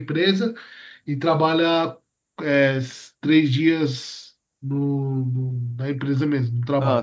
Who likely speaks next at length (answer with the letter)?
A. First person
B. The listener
A